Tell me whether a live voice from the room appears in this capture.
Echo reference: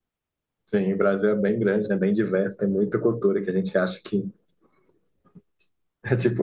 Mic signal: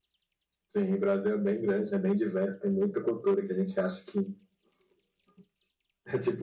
No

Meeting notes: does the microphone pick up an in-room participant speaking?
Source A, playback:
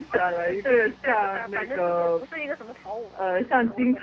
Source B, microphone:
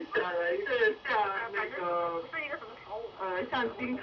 No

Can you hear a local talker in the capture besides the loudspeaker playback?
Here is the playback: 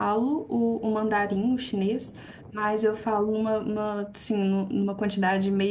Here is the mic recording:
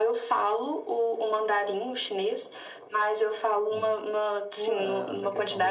Yes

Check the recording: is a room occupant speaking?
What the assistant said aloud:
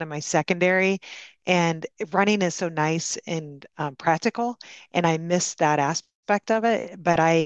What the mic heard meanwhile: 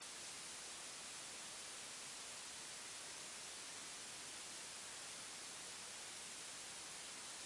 No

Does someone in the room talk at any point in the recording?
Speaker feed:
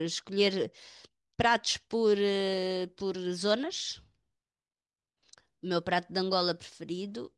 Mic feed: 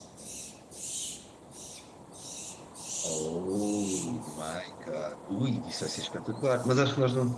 Yes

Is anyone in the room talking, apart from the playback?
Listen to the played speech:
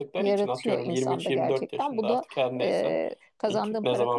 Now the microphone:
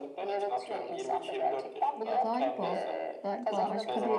Yes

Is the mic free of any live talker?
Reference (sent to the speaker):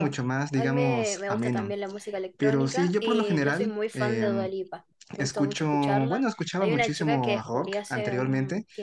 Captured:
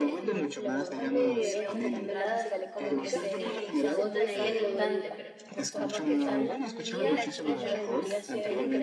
No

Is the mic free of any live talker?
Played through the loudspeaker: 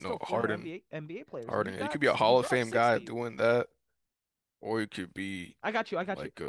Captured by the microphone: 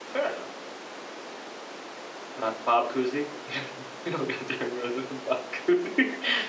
No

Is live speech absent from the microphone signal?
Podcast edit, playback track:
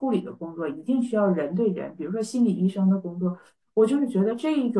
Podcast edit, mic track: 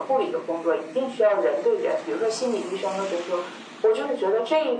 Yes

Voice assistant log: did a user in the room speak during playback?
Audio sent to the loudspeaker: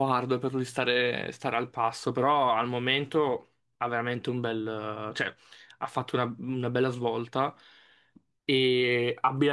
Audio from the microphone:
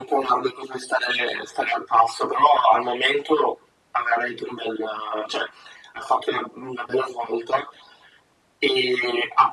No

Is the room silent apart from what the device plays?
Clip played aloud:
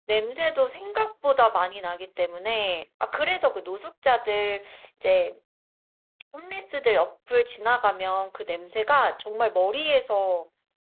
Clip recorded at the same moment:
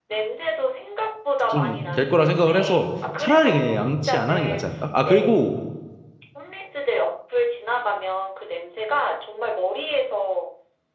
No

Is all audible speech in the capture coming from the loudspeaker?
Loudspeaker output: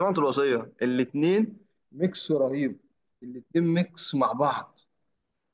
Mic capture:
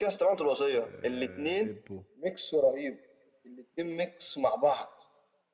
No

